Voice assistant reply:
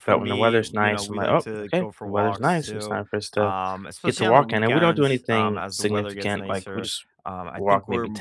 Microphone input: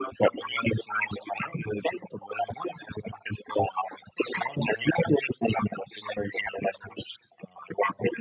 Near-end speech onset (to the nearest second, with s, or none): none